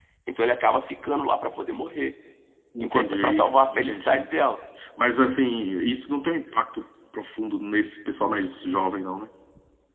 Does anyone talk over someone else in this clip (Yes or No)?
Yes